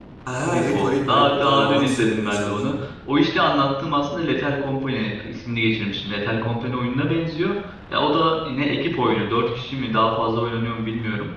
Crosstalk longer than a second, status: present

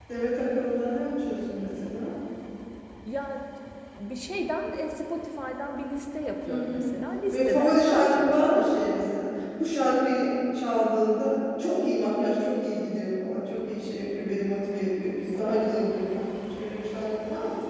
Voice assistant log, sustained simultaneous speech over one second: present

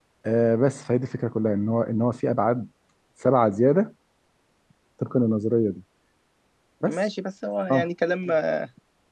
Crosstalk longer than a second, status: none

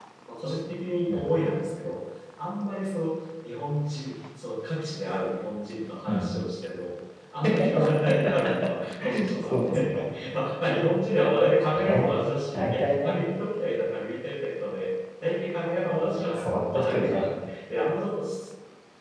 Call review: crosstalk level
present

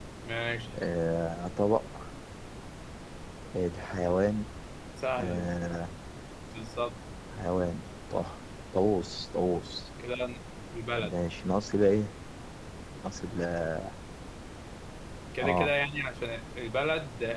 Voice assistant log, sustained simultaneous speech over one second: none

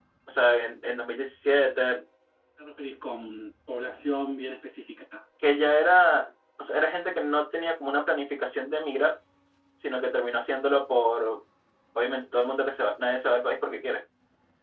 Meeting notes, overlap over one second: none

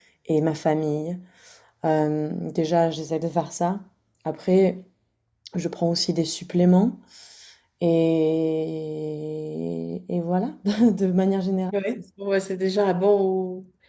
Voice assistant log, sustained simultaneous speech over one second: none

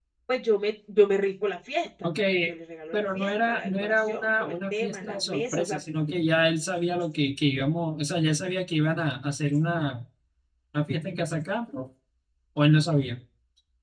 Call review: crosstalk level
present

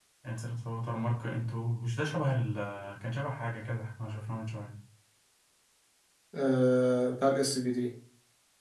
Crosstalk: none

